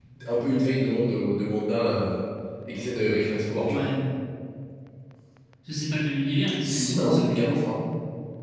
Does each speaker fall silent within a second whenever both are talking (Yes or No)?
Yes